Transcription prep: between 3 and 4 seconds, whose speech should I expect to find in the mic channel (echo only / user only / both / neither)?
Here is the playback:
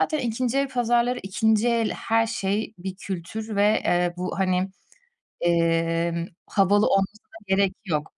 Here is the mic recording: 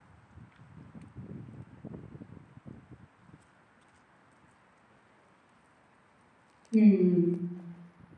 neither